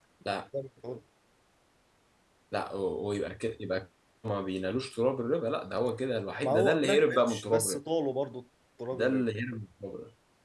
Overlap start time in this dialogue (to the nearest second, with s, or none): 6 s